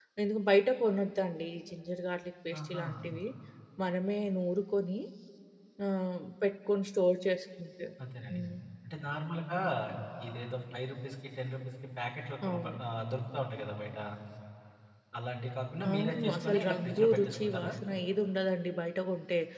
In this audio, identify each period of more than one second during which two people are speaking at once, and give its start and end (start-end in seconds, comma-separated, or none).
15.9-17.7